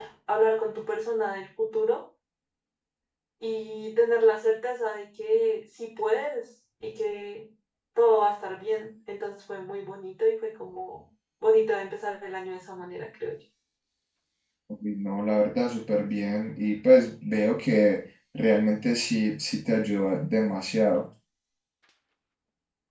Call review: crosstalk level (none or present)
none